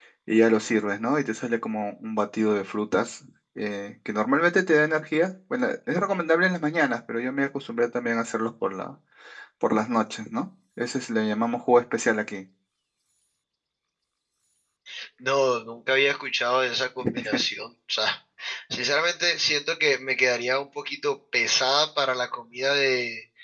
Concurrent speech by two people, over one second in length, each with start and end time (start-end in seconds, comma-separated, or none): none